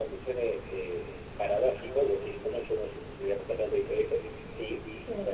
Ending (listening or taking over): listening